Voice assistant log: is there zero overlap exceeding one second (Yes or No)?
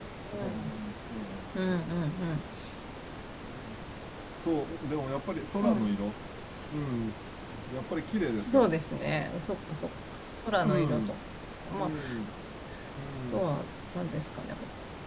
Yes